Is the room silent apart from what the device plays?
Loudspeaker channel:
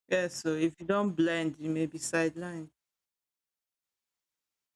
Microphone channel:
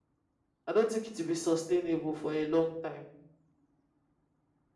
No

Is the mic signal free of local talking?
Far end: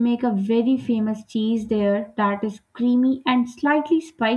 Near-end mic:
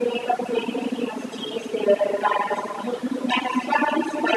Yes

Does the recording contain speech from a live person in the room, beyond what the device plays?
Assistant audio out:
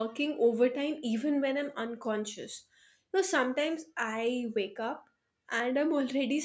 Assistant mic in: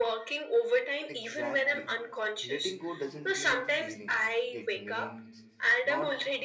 Yes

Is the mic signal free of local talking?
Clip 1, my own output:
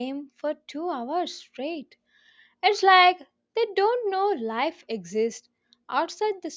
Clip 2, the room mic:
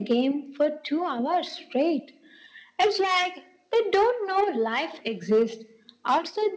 Yes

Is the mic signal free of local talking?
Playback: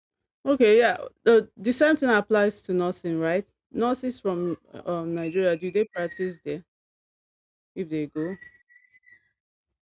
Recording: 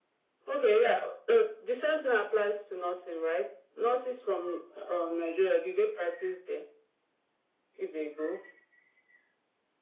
Yes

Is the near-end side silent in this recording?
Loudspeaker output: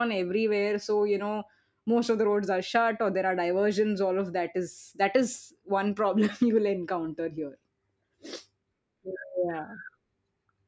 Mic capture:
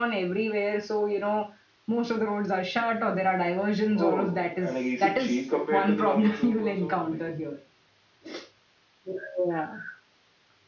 No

